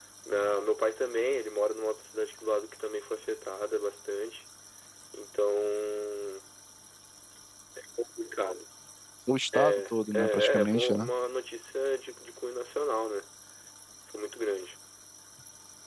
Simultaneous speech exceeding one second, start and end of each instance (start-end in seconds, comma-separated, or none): 9.5-11.1